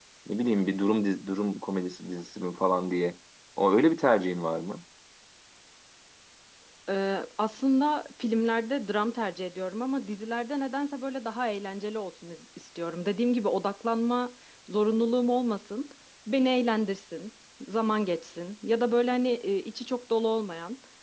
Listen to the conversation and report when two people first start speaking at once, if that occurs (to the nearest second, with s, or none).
none